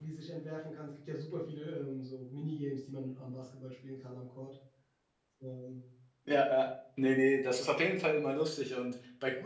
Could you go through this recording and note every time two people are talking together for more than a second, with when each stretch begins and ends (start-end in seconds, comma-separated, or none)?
none